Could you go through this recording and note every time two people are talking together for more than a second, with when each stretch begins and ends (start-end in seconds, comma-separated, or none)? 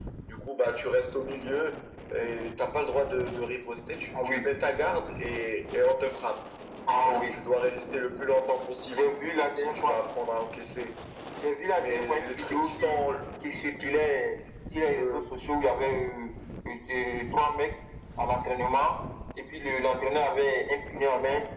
11.7-13.0